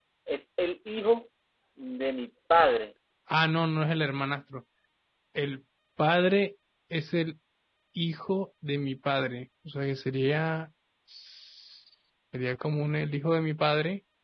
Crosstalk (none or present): none